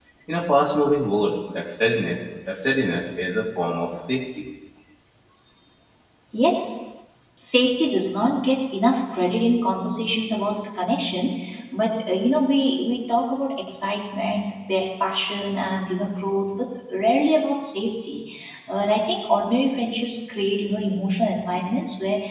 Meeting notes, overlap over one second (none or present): none